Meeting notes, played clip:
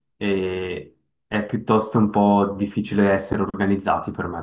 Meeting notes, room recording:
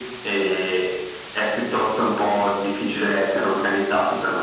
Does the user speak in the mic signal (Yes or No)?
No